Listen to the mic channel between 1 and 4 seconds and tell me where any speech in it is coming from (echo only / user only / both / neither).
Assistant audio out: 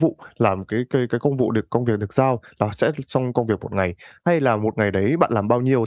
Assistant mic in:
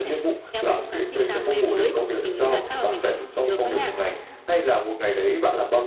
both